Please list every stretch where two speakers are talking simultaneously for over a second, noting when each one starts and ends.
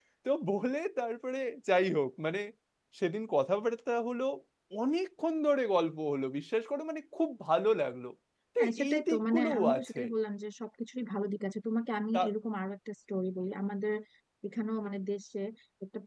8.6-10.0

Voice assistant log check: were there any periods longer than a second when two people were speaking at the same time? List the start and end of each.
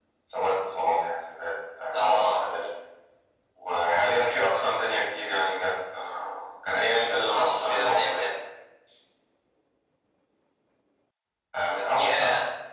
7.0-8.3

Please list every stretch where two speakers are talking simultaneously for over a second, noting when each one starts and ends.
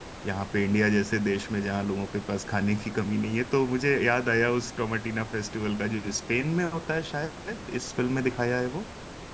none

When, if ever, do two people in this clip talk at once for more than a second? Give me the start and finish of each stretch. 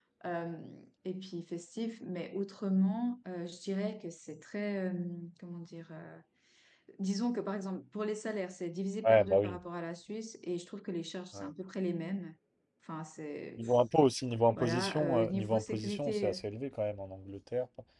14.6-16.4

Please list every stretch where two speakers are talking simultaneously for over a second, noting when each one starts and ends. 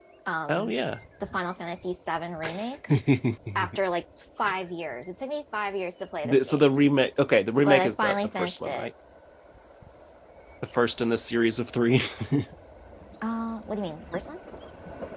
7.6-8.9

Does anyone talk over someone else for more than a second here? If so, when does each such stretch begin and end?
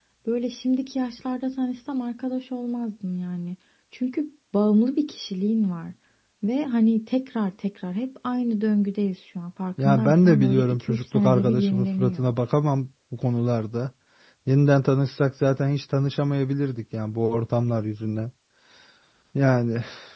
9.8-12.2

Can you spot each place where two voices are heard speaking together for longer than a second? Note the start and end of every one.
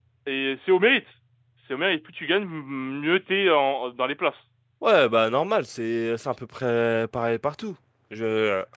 none

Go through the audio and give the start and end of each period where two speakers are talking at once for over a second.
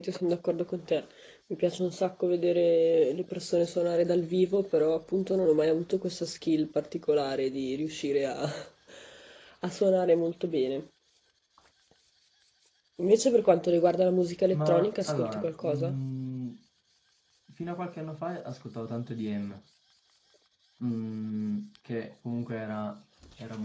14.5-15.9

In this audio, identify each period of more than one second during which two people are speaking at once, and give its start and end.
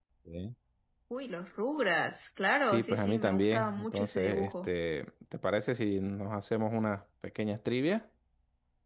2.6-4.7

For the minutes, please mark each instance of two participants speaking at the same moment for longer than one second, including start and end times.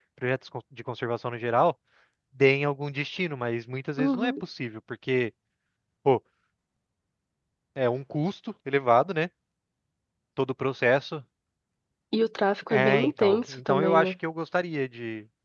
12.7-14.1

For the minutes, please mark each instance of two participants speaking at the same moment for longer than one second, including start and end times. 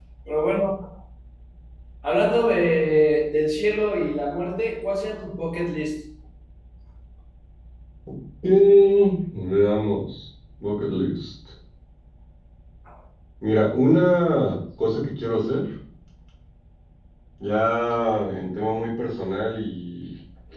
none

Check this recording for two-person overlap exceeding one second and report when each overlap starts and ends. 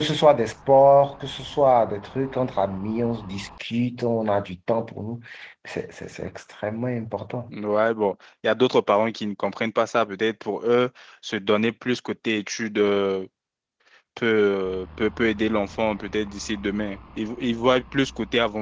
none

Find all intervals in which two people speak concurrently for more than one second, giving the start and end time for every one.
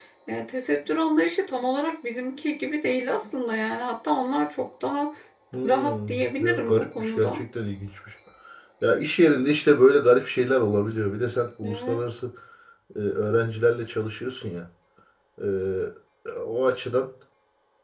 5.7-7.4

